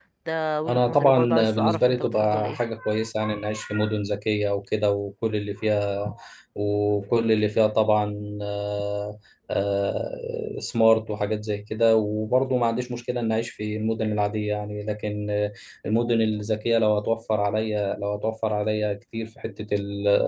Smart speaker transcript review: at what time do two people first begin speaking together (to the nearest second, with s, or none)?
1 s